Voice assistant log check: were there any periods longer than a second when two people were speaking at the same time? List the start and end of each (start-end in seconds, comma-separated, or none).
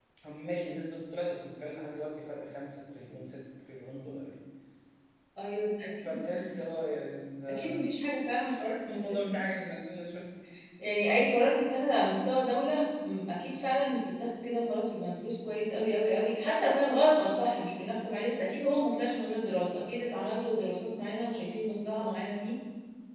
none